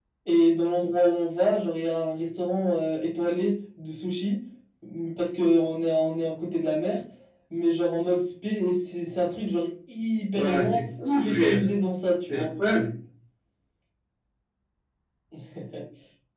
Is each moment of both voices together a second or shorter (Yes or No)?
No